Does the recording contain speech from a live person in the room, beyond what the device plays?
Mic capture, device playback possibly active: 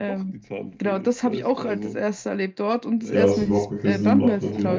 Yes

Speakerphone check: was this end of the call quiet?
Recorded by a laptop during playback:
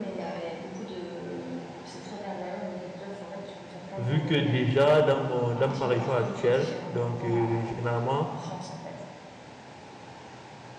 No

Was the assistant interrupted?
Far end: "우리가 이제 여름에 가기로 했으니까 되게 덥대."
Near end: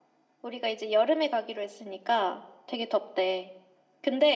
No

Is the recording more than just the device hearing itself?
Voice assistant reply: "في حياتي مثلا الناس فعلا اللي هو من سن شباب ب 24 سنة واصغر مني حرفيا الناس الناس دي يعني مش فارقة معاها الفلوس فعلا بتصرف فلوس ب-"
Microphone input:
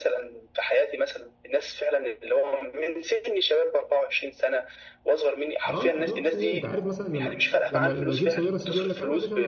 Yes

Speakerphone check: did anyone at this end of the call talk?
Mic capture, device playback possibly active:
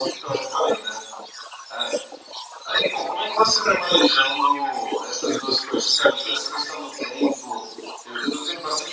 No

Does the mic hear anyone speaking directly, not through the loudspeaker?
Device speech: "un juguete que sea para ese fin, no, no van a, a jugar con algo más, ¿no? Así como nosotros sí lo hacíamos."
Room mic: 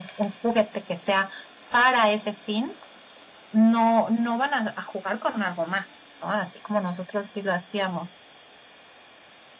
No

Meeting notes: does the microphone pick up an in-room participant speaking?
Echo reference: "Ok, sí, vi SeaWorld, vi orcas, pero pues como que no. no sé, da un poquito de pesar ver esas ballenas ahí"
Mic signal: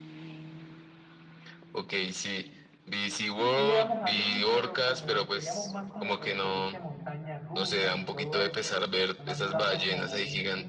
Yes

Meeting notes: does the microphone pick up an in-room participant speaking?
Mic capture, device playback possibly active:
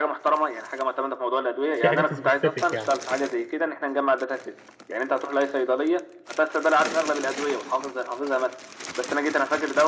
Yes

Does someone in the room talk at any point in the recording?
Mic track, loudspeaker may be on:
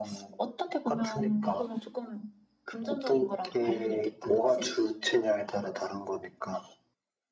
No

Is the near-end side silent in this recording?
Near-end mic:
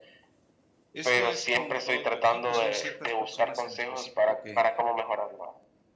No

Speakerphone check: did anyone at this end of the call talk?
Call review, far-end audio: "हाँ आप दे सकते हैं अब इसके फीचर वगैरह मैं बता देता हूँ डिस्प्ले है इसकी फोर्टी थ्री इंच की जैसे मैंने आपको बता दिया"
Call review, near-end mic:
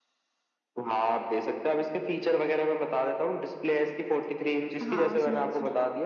Yes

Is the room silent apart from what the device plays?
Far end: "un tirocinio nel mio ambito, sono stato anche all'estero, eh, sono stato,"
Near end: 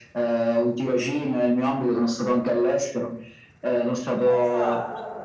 No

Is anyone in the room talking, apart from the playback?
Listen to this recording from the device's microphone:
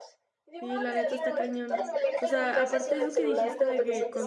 Yes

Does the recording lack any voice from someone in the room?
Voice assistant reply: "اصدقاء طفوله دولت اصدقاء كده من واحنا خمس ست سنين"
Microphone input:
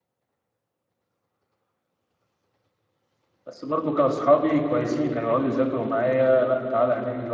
No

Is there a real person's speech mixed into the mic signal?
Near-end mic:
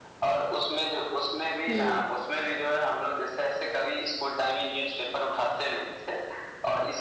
Yes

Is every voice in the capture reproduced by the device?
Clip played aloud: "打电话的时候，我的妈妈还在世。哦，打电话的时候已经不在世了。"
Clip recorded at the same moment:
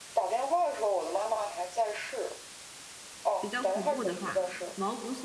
No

